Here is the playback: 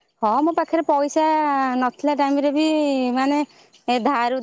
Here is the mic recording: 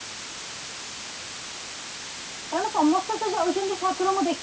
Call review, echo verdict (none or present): none